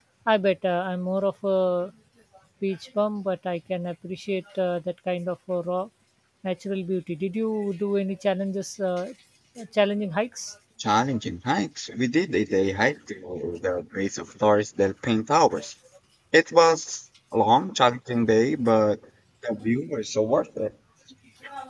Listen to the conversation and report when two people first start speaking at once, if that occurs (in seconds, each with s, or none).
none